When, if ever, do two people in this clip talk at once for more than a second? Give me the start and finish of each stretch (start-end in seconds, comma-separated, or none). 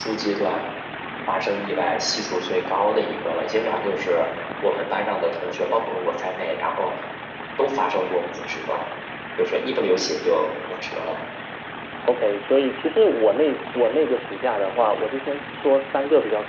none